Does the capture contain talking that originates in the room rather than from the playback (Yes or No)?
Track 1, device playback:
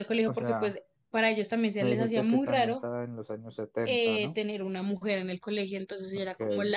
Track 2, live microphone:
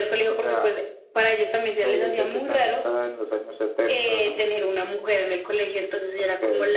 No